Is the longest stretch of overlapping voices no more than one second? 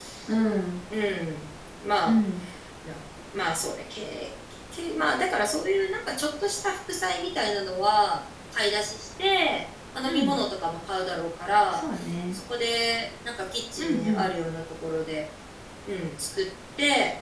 Yes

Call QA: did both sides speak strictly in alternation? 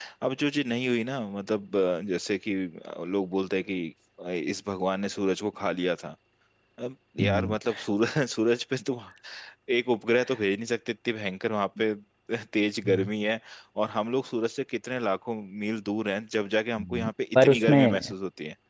No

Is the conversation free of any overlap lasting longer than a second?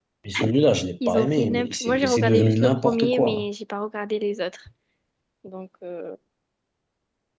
No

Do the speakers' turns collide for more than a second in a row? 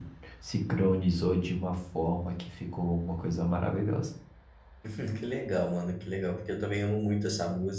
No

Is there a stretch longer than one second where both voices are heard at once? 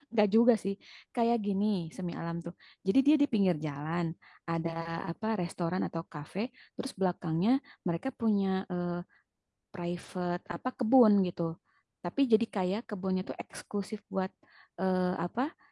No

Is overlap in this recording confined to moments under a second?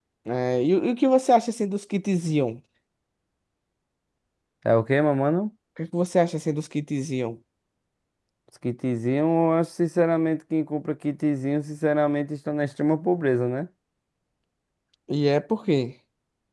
Yes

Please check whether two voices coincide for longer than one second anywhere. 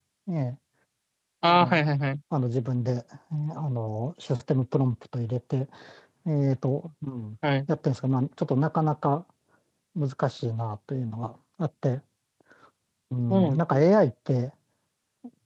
No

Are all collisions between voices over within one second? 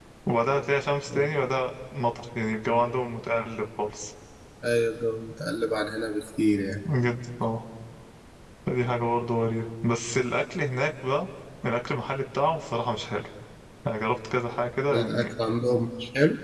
Yes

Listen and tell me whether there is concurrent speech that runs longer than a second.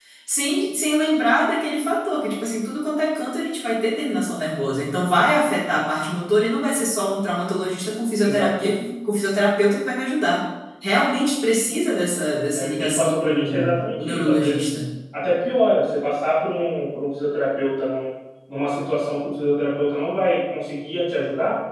Yes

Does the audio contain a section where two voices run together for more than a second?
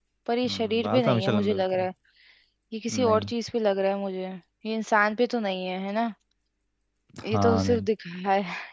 Yes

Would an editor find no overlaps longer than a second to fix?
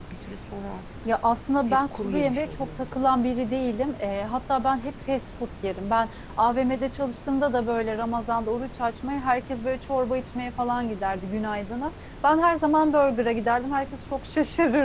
No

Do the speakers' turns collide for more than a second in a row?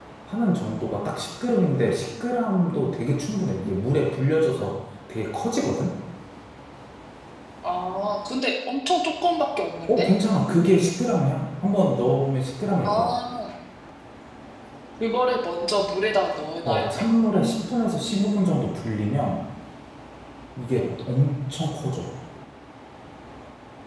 No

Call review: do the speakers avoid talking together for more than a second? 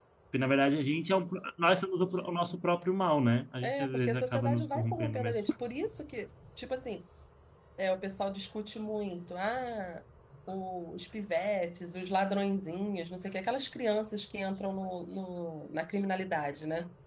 No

